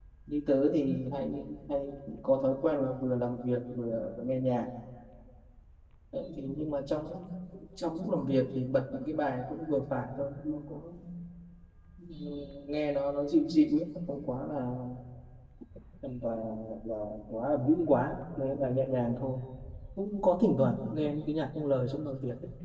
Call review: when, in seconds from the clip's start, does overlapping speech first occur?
none

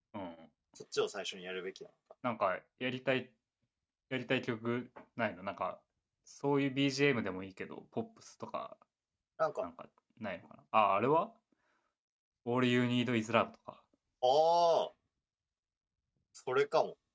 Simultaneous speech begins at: none

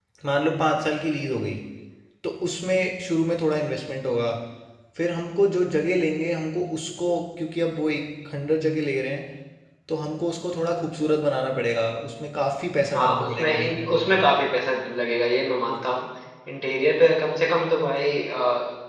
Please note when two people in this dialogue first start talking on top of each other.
12.8 s

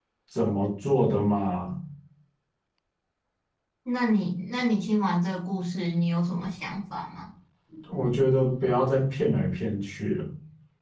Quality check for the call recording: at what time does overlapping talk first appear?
none

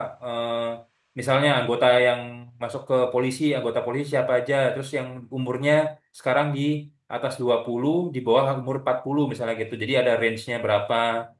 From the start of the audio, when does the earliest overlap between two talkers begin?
none

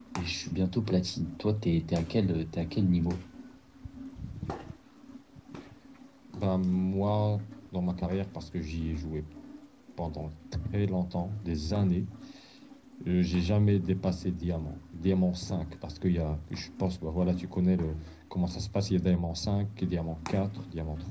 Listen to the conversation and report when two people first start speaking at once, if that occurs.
none

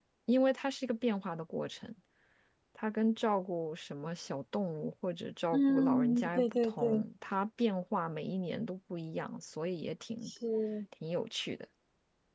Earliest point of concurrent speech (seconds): 5.5 s

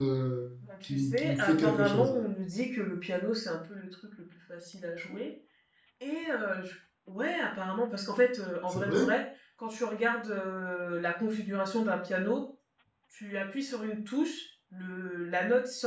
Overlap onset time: 0.8 s

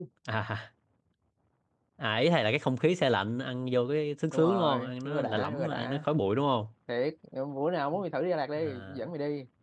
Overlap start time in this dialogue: 4.3 s

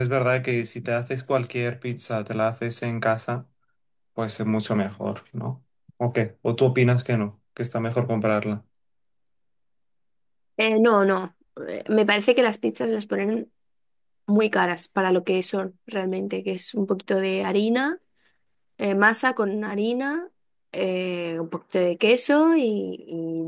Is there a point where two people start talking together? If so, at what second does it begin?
none

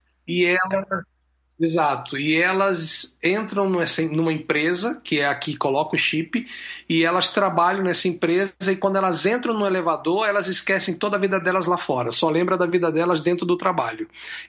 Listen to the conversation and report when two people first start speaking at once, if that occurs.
none

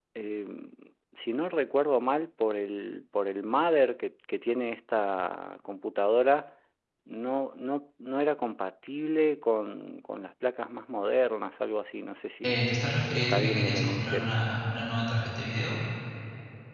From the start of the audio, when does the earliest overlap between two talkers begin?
12.4 s

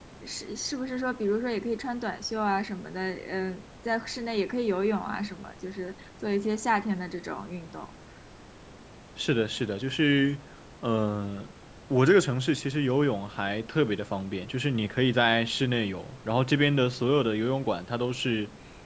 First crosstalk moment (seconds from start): none

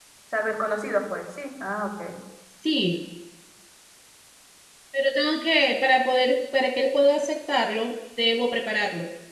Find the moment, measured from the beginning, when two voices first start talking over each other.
none

